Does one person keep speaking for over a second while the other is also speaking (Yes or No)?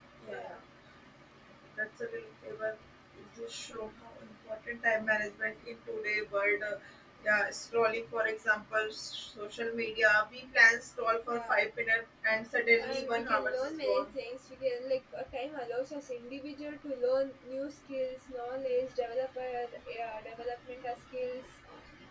Yes